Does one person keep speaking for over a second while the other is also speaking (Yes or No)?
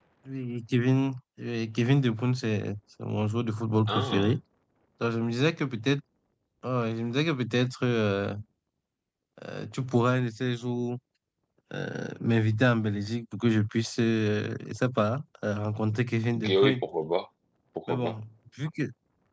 No